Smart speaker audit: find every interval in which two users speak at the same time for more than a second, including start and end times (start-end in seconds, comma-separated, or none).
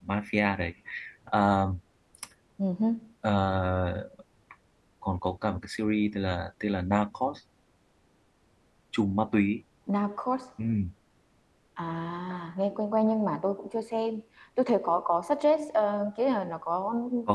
none